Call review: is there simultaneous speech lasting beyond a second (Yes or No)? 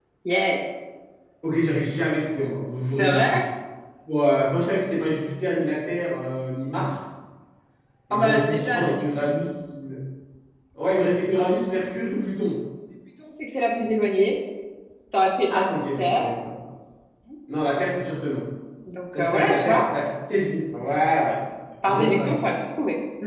Yes